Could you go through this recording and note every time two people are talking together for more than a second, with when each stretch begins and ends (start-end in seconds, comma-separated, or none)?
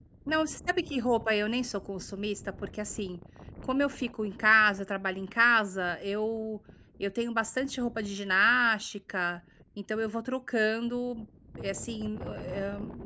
none